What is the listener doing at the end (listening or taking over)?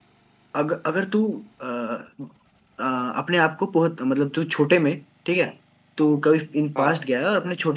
listening